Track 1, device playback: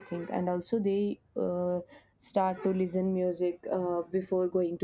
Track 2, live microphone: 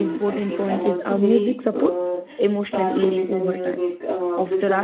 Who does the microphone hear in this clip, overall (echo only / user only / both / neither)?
both